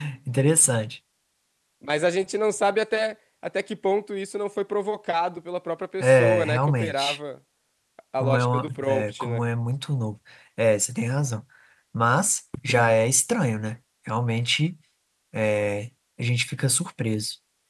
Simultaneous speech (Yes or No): Yes